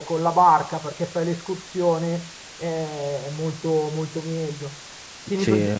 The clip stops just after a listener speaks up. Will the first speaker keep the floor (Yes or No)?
Yes